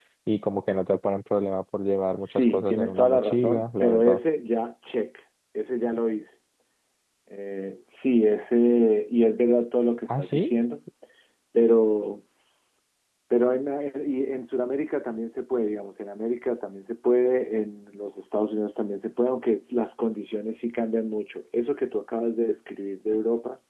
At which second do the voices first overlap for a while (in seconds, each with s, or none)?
2.2 s